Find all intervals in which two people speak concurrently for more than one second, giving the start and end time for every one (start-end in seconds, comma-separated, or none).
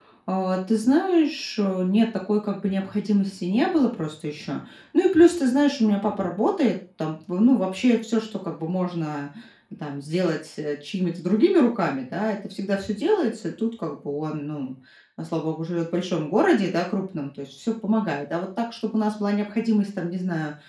none